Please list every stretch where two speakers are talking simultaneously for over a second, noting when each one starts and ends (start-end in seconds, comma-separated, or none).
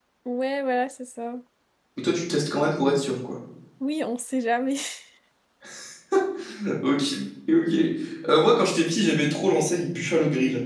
none